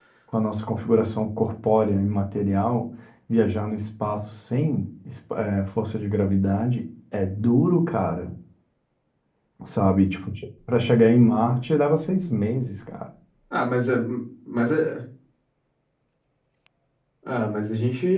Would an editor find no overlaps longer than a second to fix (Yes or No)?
Yes